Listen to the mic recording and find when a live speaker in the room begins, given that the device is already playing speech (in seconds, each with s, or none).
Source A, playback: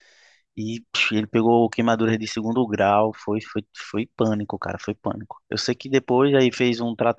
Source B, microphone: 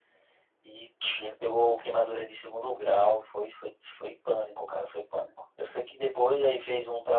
none